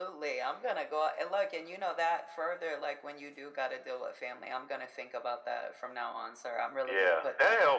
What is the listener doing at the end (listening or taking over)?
taking over